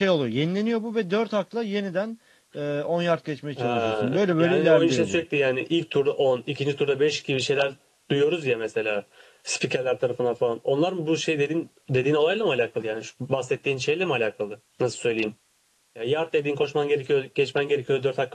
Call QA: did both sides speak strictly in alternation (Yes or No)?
No